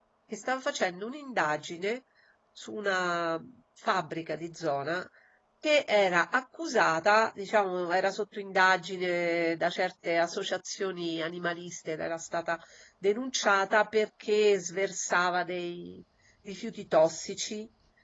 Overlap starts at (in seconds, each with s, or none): none